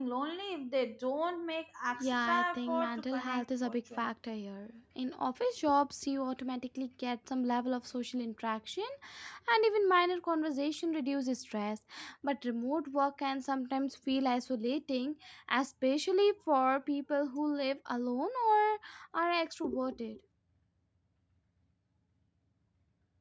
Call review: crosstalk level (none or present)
present